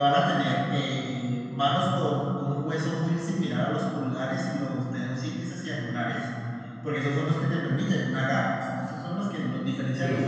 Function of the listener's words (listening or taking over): listening